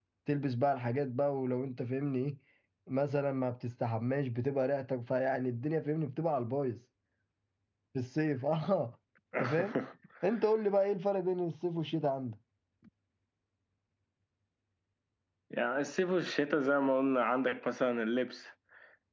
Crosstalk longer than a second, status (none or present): none